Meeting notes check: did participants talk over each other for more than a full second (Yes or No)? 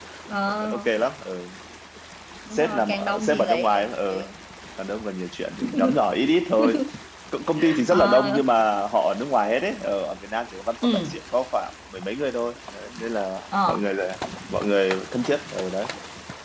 Yes